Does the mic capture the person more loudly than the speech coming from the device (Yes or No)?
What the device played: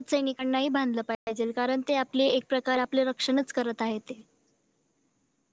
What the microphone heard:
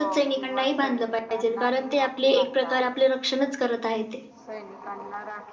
No